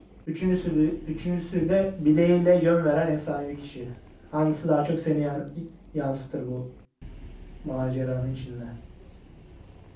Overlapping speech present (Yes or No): No